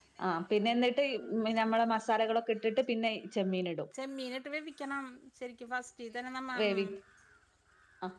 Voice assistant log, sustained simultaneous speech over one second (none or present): none